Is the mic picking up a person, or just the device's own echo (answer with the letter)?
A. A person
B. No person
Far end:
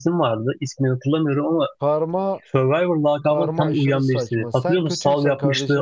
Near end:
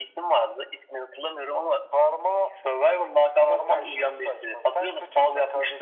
B